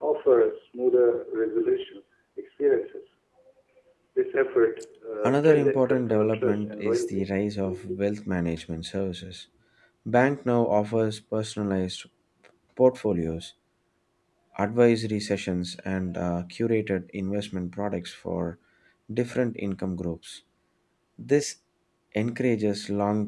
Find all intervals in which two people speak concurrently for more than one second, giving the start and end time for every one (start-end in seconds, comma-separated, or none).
5.2-7.3